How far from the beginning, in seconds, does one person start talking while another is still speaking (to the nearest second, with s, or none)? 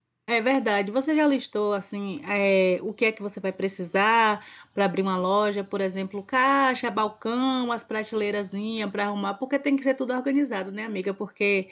none